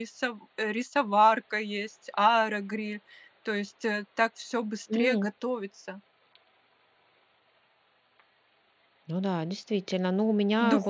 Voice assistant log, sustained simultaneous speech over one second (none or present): none